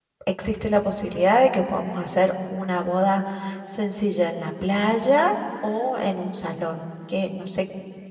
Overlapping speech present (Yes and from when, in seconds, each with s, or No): No